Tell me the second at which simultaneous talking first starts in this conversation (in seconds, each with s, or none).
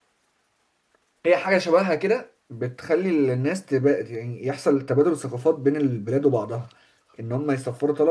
none